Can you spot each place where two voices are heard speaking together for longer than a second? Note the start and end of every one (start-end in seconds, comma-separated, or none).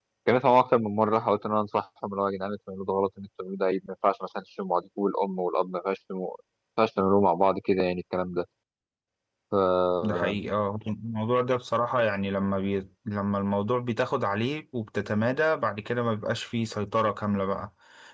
none